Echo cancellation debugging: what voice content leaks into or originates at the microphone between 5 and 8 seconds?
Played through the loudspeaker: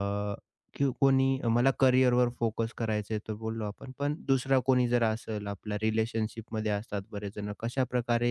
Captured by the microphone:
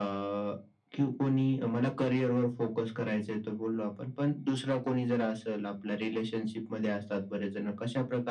echo only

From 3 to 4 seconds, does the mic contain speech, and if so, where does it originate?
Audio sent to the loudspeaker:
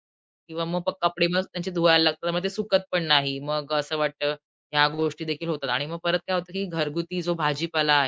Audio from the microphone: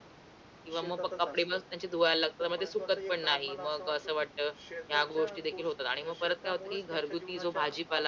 both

